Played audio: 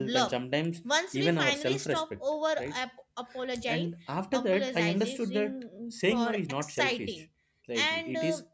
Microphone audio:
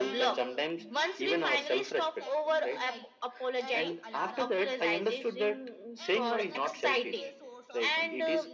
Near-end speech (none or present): present